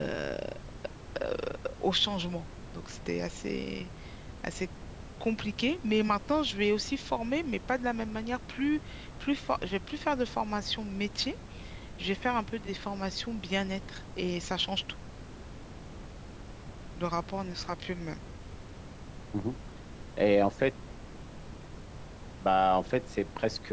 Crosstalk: none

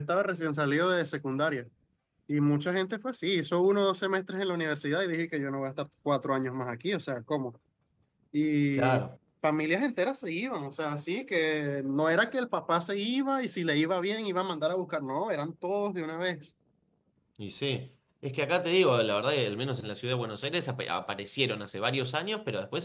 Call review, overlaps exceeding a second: none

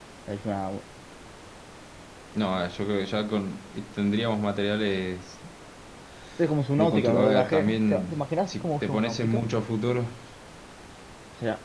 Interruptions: present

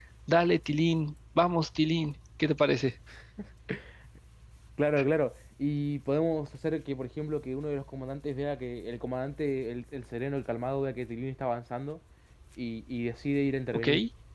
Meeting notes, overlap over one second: none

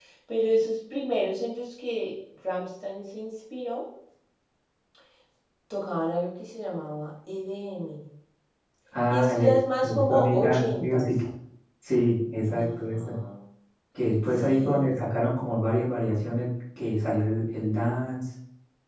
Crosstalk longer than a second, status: present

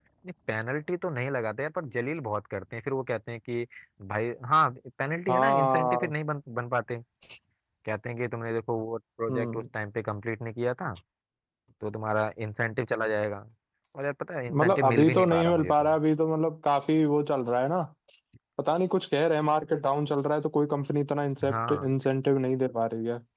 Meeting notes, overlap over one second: present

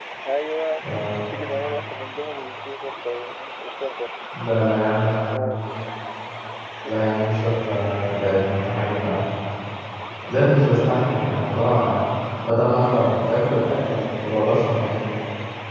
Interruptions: none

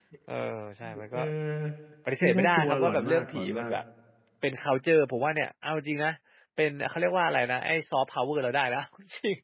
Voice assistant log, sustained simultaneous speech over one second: present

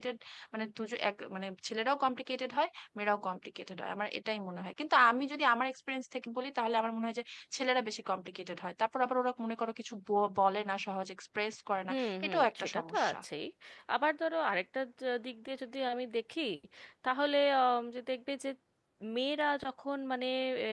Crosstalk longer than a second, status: present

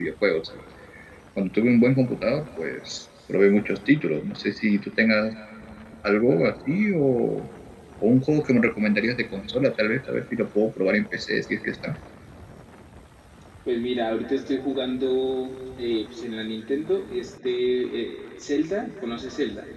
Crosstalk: none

